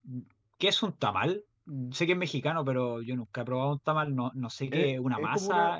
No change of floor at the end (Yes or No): No